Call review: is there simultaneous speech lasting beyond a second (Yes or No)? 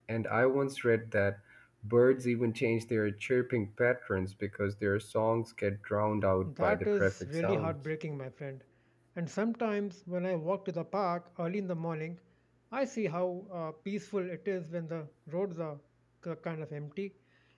Yes